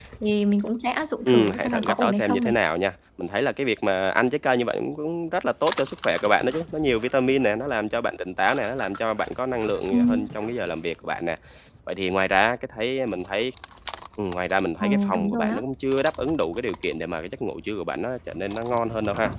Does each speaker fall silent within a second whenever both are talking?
No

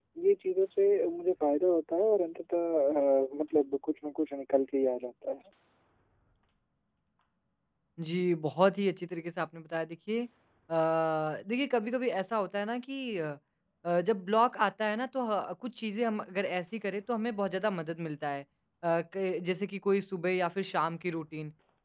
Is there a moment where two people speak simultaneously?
No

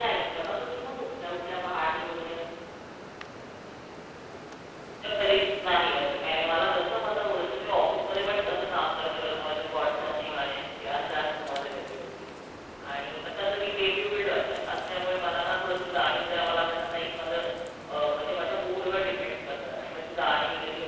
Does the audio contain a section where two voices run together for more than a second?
No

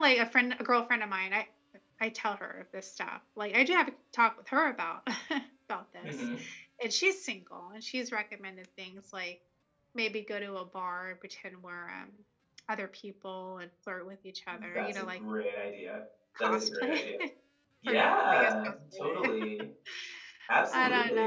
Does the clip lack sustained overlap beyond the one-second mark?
No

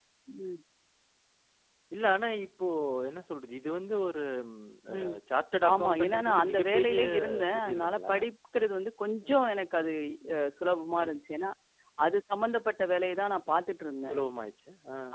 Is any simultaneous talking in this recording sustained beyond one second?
Yes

